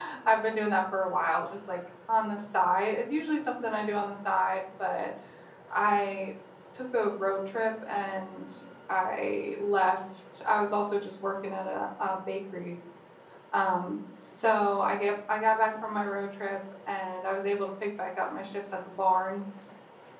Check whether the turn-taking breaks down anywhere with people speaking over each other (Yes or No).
No